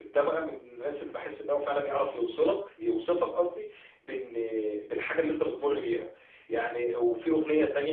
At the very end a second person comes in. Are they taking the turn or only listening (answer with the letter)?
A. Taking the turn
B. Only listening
B